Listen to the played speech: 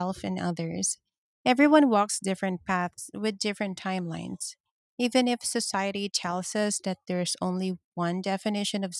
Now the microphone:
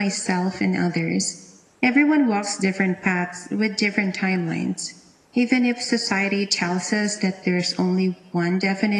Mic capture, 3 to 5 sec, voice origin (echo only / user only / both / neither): echo only